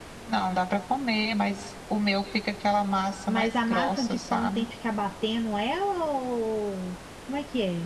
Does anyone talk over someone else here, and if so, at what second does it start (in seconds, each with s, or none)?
3.3 s